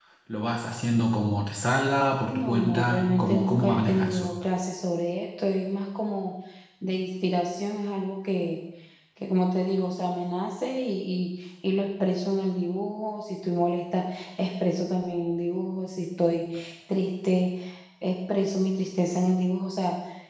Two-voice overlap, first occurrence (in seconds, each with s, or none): 2.2 s